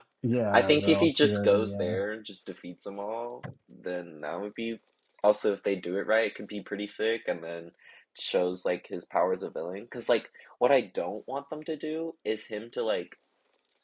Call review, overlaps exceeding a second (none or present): present